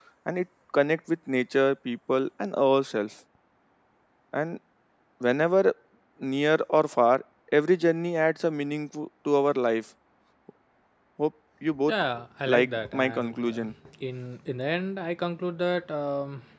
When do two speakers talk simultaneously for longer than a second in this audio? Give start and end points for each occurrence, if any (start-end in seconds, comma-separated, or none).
12.5-13.7